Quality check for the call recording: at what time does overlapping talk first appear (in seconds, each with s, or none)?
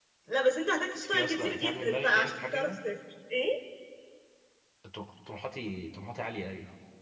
1.0 s